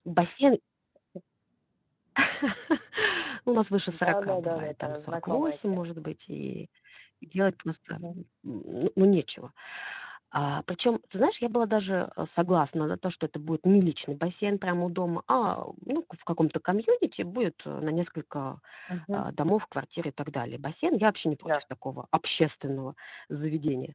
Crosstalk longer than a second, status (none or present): present